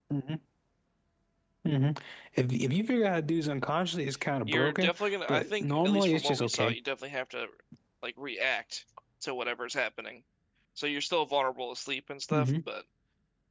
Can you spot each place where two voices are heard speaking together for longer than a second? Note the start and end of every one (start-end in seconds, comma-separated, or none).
4.5-6.8